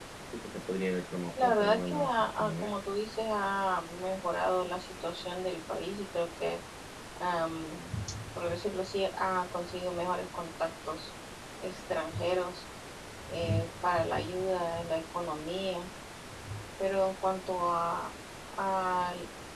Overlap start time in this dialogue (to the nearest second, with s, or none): 1 s